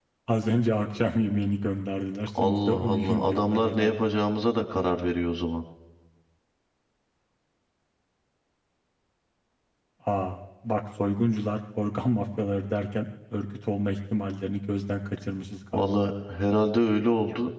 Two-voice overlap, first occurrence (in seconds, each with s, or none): 2.4 s